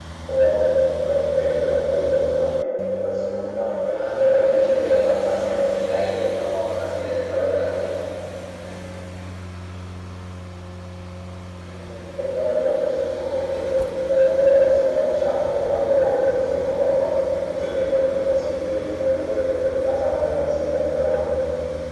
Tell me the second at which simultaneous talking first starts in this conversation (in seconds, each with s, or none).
3.9 s